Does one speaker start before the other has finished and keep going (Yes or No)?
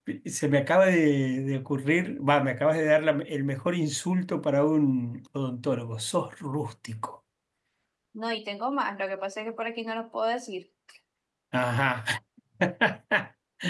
No